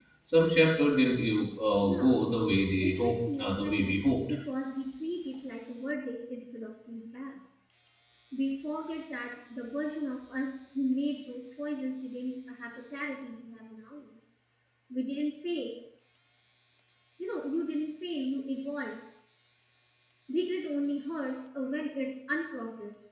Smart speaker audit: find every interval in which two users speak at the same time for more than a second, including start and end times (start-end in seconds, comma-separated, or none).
2.8-4.0